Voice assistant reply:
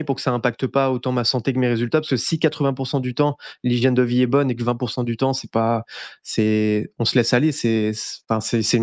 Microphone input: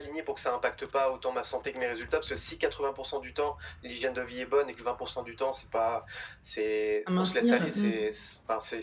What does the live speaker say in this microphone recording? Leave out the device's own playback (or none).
À maintenir, mmh.